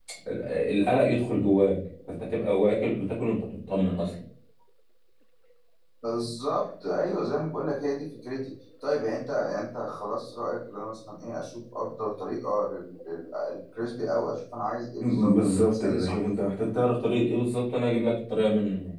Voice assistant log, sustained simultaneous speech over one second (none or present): present